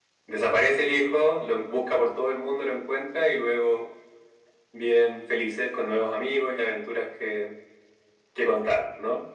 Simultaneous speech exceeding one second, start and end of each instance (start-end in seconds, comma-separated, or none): none